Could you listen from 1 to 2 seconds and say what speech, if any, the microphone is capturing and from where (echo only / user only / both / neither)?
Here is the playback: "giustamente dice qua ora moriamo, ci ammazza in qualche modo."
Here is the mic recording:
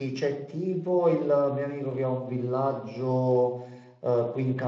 user only